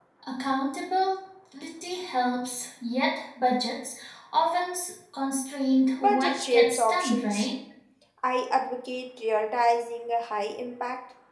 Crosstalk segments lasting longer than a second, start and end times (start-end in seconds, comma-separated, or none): 6.0-7.5